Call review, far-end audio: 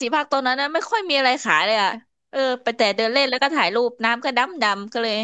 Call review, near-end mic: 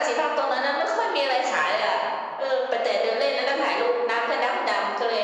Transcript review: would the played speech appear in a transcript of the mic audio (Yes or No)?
Yes